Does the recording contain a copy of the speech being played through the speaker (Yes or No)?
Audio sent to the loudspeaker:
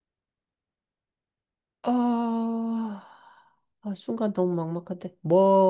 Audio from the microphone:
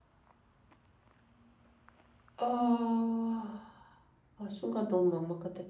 Yes